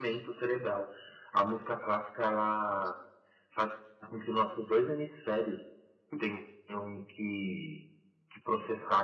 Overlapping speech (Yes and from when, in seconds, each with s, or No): No